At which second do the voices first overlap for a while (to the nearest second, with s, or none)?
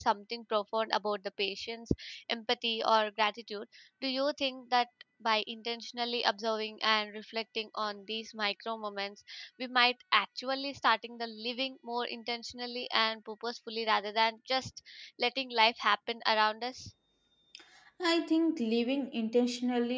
none